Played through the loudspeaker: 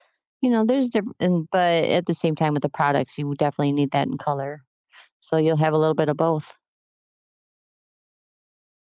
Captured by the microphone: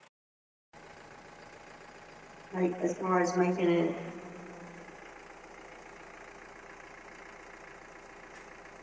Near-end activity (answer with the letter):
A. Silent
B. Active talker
B